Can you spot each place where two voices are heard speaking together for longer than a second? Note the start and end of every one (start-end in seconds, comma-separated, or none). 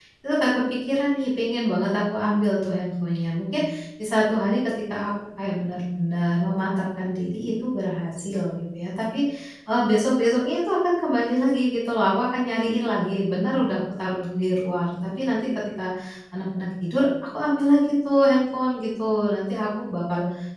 none